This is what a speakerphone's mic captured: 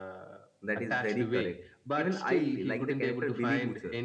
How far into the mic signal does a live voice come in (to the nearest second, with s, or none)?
1 s